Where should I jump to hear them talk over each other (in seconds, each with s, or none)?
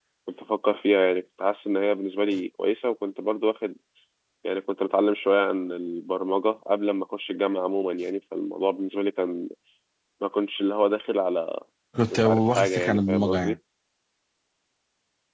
12.1 s